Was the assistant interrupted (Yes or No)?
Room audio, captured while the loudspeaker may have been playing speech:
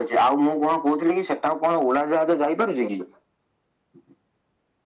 No